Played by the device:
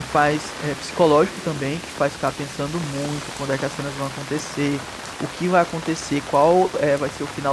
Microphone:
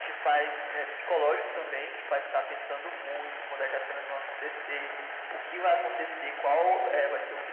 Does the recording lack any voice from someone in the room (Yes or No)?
Yes